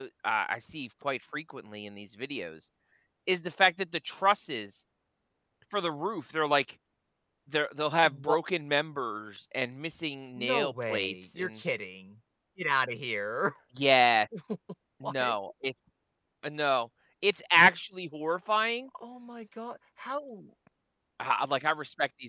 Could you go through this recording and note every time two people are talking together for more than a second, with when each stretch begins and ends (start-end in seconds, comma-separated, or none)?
10.4-11.6